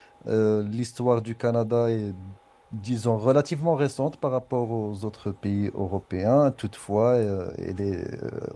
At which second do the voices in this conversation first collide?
none

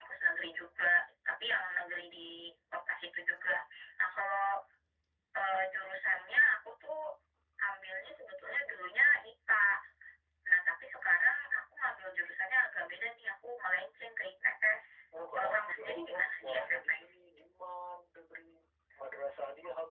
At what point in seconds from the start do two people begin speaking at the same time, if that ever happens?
15.4 s

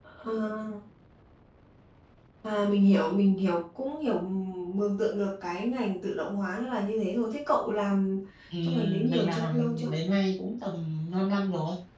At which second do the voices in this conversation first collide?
8.6 s

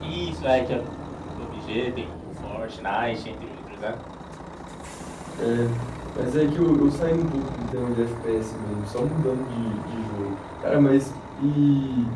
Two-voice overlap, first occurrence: none

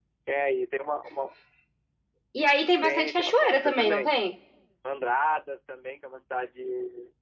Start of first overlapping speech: 2.8 s

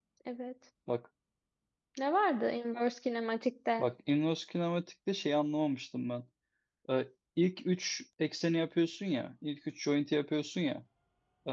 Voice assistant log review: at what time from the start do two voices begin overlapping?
none

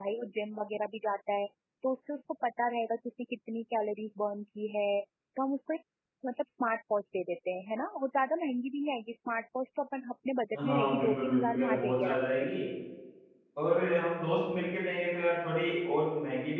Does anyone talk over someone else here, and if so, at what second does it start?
10.5 s

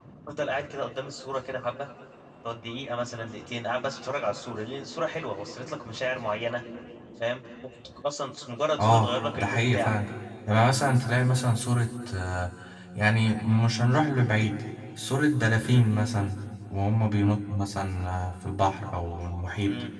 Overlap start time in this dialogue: 8.8 s

